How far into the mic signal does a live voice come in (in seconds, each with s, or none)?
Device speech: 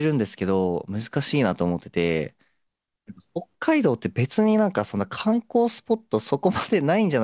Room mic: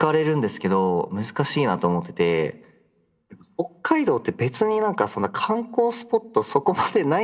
none